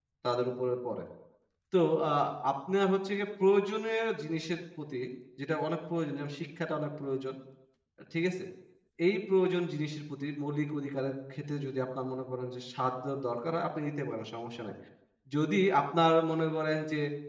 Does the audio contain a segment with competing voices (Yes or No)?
No